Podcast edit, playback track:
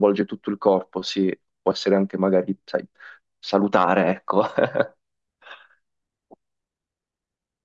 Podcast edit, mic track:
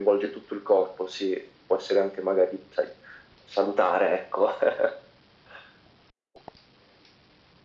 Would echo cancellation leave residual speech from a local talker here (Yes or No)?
No